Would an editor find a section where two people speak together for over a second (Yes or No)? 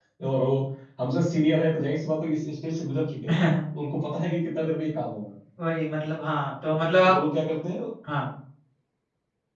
No